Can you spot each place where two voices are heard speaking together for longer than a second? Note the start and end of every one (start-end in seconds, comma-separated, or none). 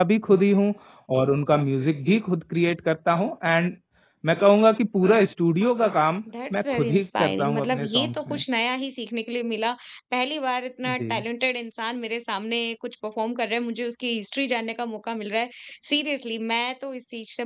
6.5-8.4